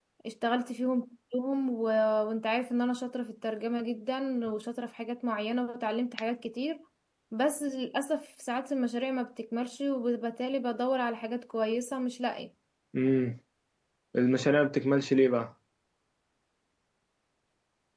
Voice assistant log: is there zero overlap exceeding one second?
Yes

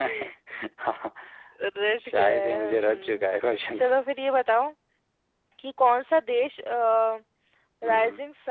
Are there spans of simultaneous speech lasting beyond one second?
Yes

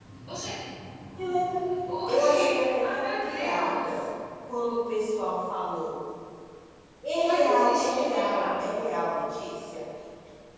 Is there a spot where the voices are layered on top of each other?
Yes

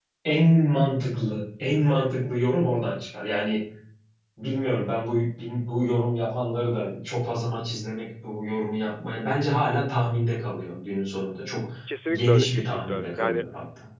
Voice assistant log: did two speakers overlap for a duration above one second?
Yes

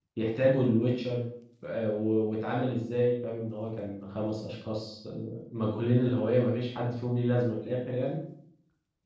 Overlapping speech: No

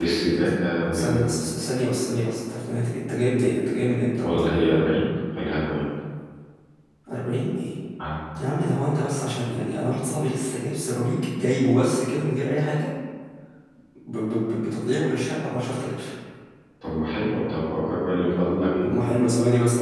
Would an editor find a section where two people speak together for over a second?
No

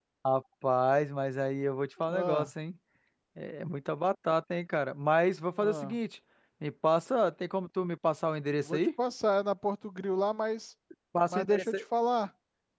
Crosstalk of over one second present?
No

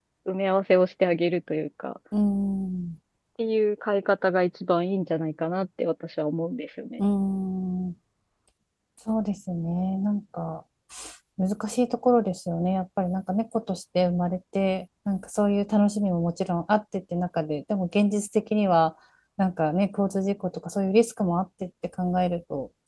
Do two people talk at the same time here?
No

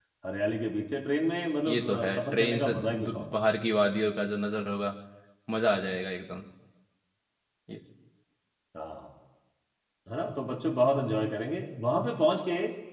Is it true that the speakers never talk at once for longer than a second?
No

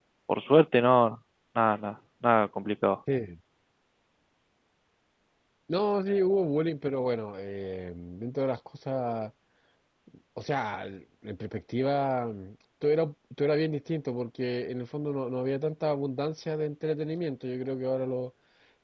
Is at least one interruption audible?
No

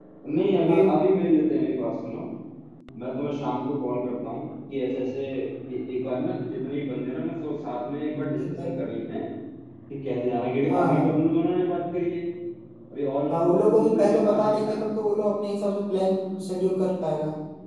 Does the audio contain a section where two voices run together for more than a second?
Yes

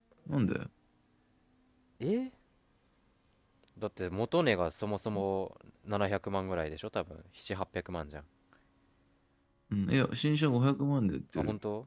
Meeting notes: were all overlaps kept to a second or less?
Yes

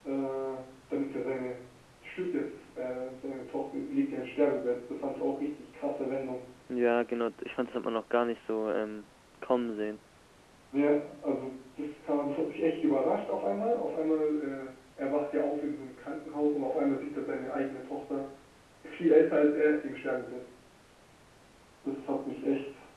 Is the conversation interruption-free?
Yes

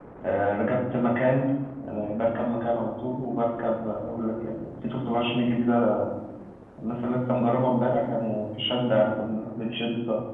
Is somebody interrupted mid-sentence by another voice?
No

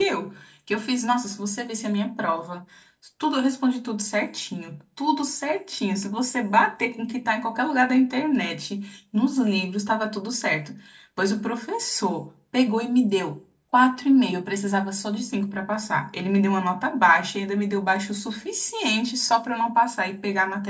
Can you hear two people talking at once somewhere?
No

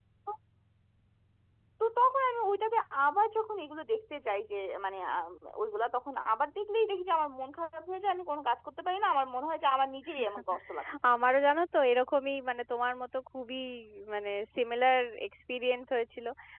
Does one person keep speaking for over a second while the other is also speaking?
No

